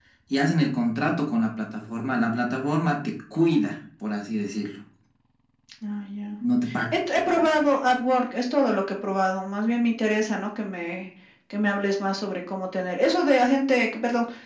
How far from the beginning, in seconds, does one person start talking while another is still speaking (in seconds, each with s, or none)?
none